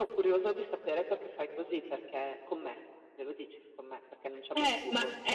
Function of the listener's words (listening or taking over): taking over